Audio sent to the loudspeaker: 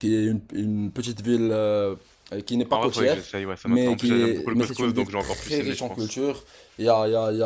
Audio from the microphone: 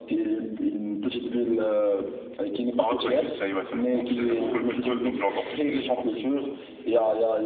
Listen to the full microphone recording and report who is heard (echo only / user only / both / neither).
both